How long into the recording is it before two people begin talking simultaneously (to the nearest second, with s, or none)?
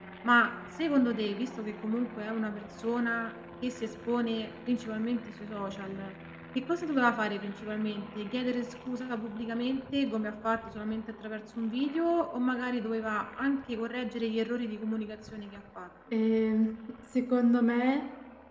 none